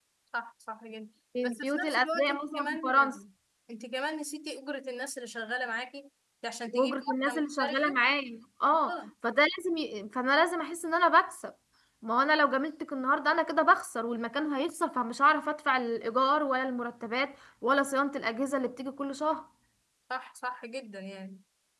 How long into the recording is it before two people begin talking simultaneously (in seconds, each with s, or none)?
1.4 s